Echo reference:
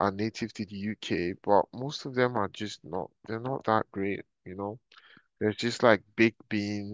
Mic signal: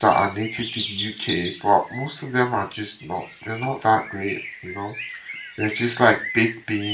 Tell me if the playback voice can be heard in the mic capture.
Yes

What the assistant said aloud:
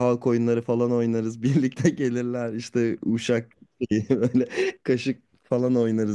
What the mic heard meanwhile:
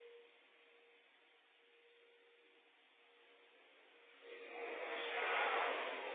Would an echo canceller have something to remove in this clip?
No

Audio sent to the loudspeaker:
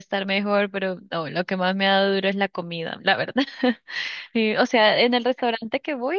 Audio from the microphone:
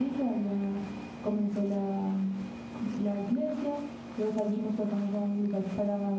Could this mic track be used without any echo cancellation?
Yes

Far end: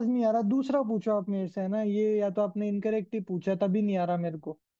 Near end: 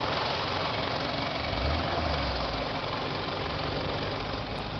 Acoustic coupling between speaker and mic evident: No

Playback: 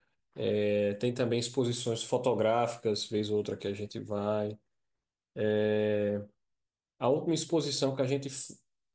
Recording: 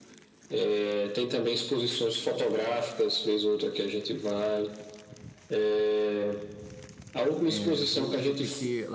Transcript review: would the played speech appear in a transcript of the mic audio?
Yes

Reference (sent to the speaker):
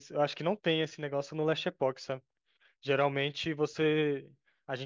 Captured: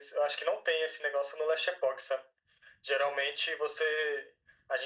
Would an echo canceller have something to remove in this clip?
Yes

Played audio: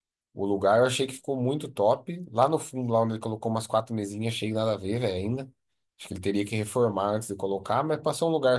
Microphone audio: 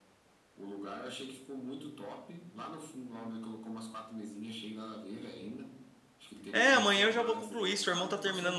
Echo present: Yes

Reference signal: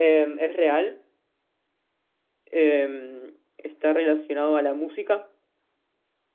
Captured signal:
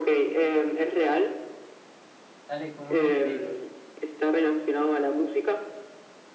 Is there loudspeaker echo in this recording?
Yes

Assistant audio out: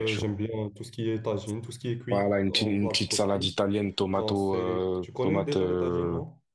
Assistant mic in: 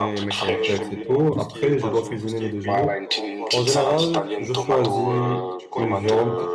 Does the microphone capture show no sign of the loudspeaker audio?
No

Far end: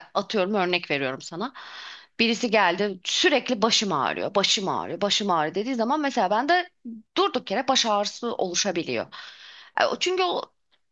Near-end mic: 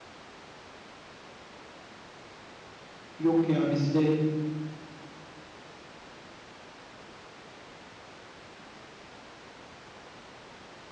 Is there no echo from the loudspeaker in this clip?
Yes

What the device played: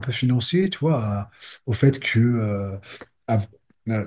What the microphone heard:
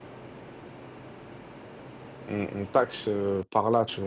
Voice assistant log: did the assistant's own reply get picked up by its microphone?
No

